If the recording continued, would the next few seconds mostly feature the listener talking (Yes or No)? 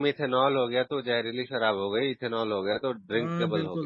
Yes